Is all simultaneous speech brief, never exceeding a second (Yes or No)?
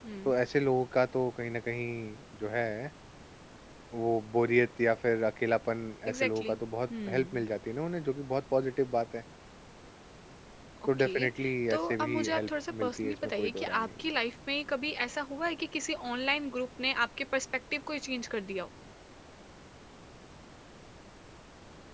No